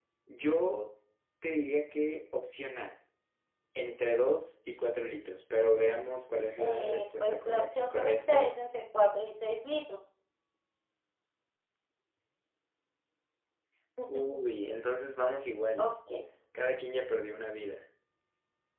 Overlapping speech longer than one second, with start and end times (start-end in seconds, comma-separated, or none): 6.6-8.5